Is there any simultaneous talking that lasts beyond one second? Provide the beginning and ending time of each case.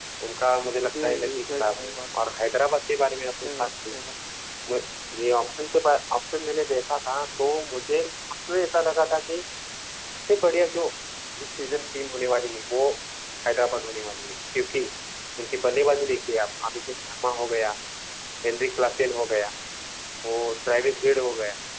1.0-2.3

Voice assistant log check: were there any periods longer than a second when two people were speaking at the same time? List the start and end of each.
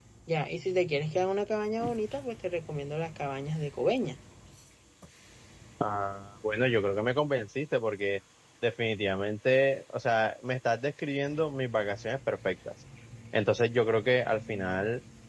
none

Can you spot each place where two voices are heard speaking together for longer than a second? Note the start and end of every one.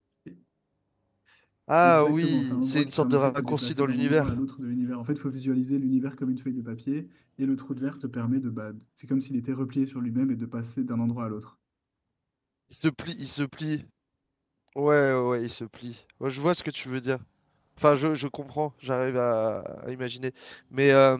1.8-4.3

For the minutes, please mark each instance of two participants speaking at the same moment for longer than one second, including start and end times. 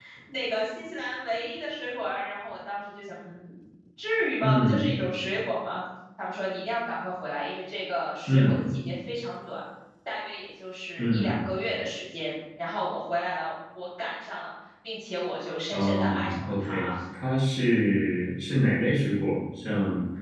15.7-16.9

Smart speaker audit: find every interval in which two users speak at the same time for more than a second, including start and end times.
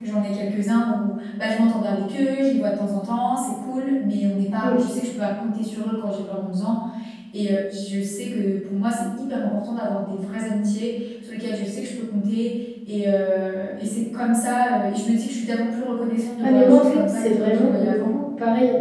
16.4-18.1

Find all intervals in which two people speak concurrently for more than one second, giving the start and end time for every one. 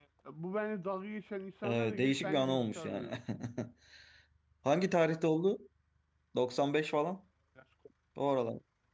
1.6-3.1

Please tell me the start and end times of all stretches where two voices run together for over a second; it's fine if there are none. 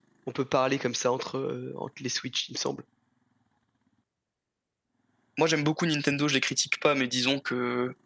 none

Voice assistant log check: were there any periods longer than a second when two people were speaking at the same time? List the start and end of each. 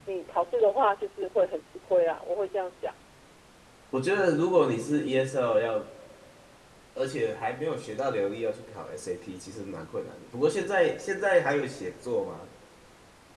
none

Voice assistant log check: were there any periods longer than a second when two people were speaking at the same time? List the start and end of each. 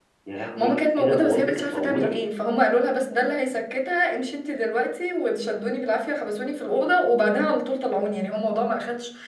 0.6-2.1

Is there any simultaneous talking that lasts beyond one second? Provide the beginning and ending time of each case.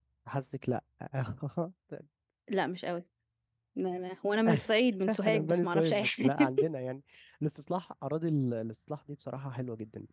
5.2-6.5

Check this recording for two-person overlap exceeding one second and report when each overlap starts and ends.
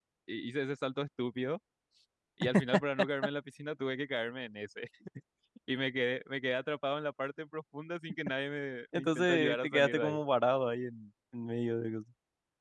9.0-10.2

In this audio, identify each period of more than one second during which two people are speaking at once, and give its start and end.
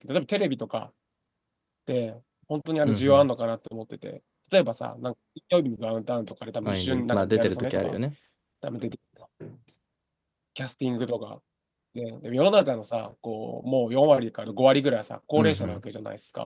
6.6-8.0

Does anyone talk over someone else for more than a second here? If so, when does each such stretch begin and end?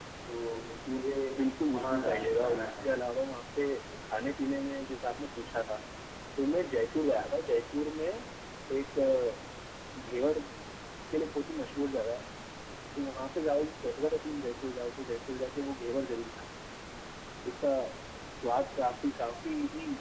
1.7-2.9

